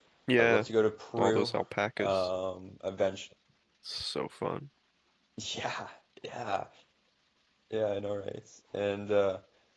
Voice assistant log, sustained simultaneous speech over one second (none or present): none